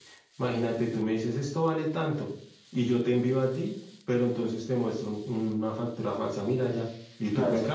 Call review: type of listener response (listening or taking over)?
listening